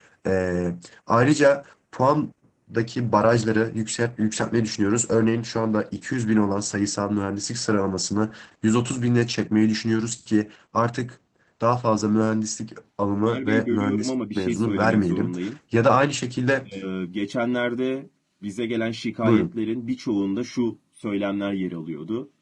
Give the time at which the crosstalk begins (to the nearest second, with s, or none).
13 s